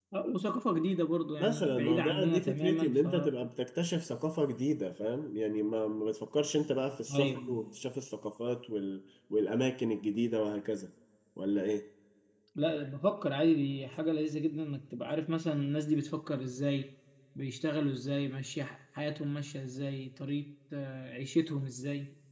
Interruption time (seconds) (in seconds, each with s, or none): 1.4 s